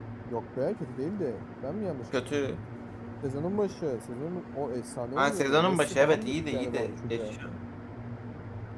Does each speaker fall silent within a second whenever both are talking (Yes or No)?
No